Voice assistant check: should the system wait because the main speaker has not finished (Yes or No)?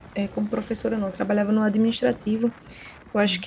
Yes